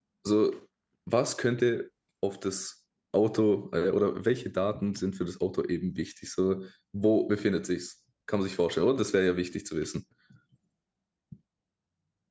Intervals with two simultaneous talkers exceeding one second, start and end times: none

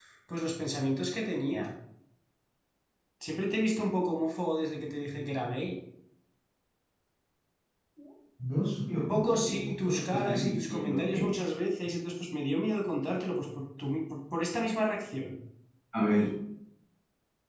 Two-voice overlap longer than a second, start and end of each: 9.1-11.3

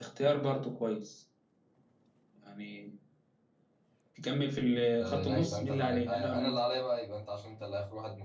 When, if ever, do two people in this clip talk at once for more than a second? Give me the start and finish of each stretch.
5.0-6.6

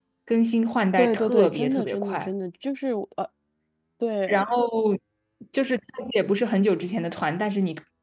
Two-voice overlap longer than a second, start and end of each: 1.0-2.3

